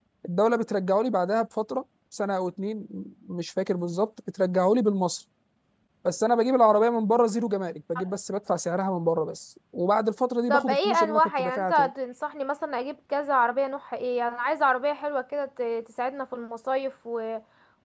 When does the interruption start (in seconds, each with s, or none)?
10.5 s